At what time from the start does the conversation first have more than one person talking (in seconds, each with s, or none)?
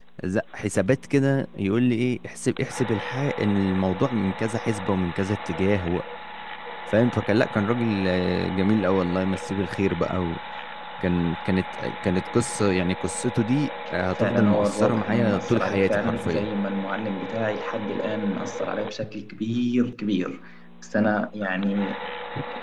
14.2 s